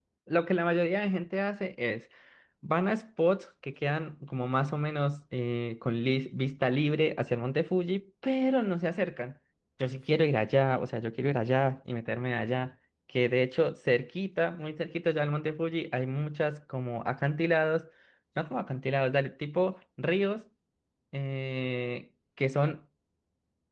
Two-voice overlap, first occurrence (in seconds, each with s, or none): none